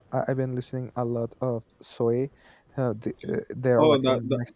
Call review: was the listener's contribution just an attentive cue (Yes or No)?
No